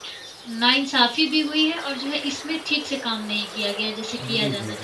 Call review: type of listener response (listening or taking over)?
taking over